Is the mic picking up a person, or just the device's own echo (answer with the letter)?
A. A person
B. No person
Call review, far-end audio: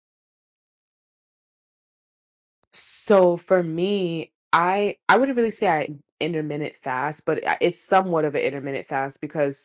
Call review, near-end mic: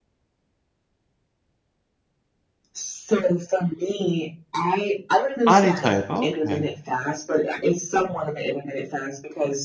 A